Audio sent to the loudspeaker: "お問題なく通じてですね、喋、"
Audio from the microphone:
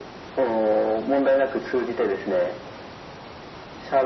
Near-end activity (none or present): none